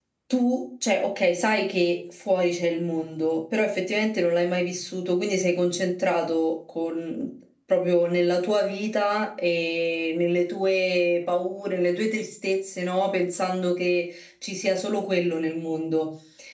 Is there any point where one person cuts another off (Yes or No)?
No